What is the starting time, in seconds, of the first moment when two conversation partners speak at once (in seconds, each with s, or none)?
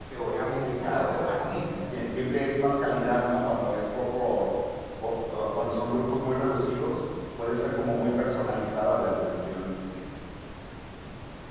0.6 s